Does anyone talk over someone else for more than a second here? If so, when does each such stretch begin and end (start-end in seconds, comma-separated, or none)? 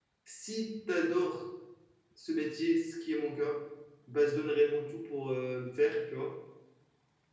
none